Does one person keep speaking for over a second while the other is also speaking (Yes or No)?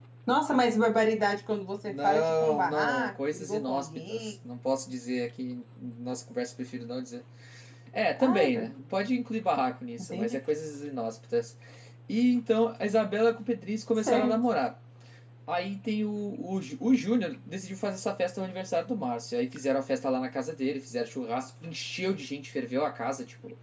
Yes